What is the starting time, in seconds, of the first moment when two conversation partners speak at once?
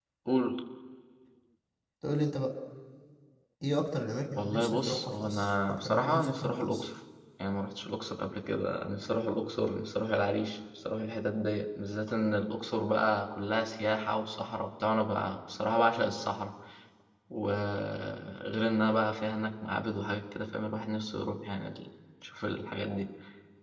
4.4 s

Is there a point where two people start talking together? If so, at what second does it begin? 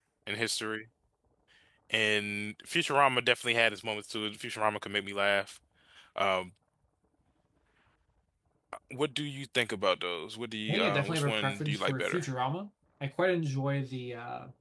10.7 s

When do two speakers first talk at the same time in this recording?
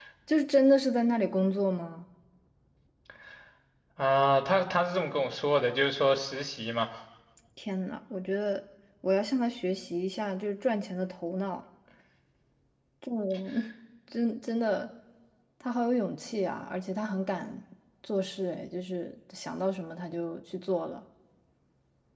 none

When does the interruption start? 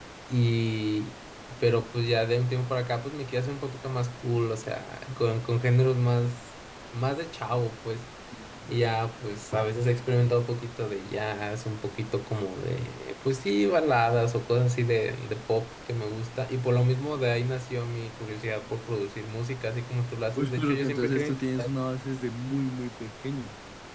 20.4 s

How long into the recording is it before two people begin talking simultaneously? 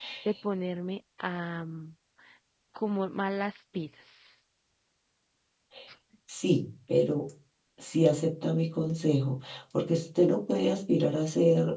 none

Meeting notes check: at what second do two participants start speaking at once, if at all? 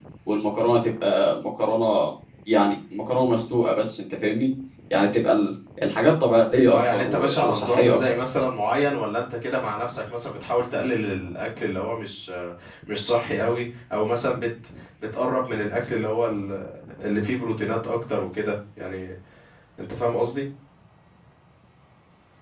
6.7 s

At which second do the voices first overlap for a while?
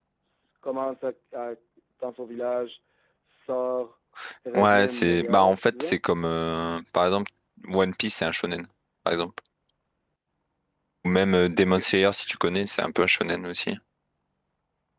4.5 s

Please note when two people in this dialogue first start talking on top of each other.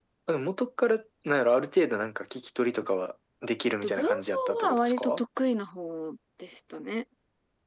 3.7 s

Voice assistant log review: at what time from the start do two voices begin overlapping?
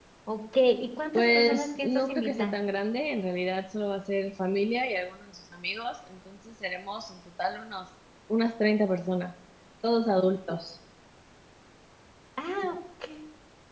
1.1 s

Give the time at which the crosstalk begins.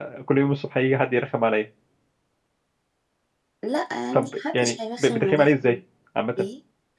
4.1 s

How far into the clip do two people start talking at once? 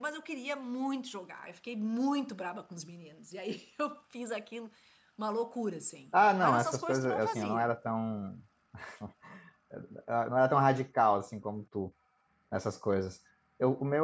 6.1 s

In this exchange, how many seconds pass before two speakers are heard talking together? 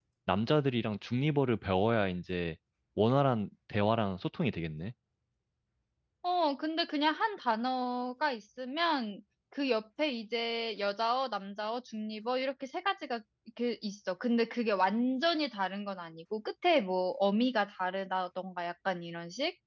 none

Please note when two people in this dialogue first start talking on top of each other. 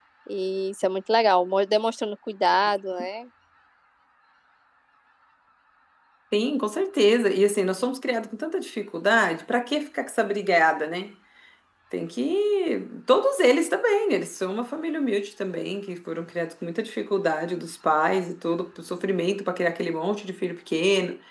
none

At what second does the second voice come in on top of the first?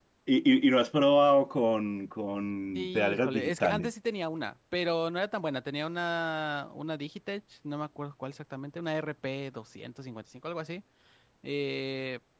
2.8 s

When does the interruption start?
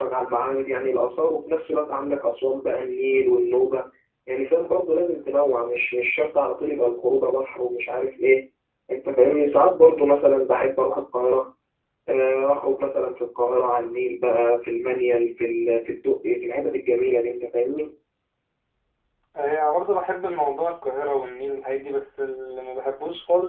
none

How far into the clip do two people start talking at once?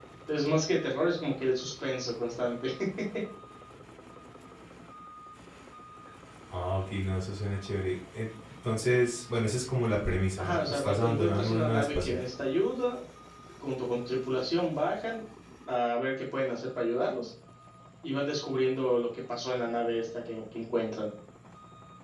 10.4 s

